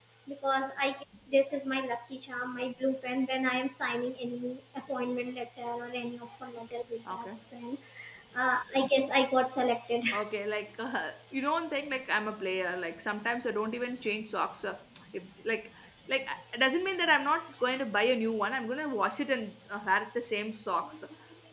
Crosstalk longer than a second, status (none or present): none